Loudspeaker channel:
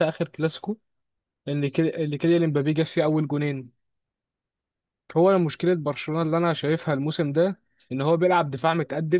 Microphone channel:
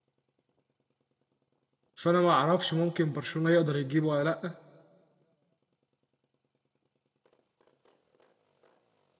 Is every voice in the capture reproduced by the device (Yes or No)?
No